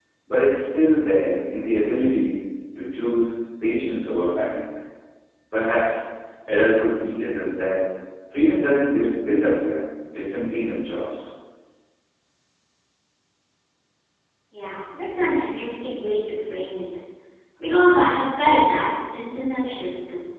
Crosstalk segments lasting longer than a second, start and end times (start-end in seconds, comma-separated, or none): none